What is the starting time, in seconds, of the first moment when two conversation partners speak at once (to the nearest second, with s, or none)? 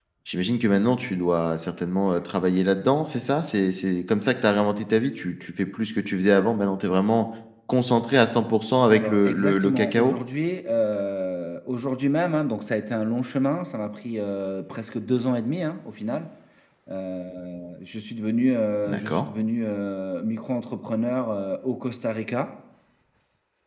9 s